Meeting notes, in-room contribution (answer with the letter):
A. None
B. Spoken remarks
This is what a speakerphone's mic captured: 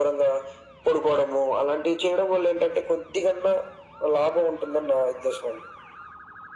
A